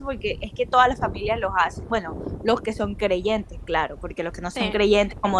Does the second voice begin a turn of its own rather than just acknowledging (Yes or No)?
No